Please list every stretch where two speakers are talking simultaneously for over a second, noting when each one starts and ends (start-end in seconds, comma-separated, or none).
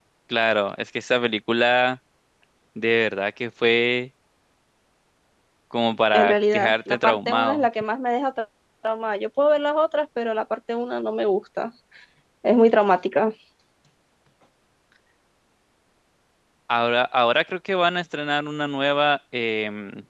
6.1-7.7